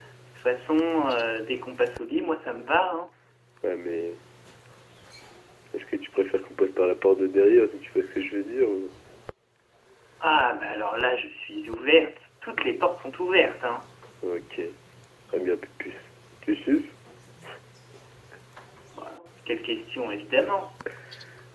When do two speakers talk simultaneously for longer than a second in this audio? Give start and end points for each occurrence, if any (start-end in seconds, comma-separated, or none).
none